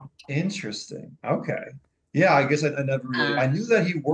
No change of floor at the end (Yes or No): Yes